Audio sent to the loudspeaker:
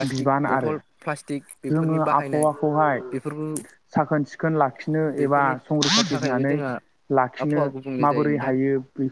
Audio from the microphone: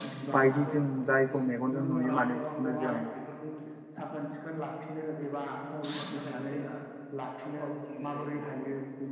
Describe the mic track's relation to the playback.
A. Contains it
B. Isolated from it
A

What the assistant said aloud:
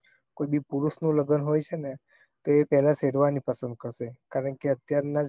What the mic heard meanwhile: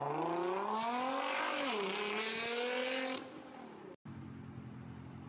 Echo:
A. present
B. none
B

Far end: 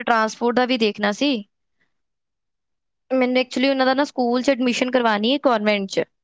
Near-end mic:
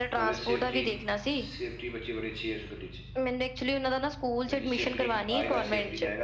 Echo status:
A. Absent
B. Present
B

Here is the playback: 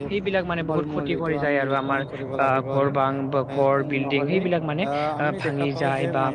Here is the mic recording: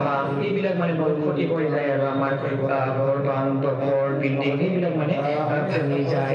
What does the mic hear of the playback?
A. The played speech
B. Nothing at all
A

